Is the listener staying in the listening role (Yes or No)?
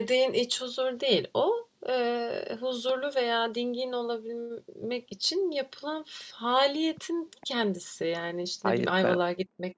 Yes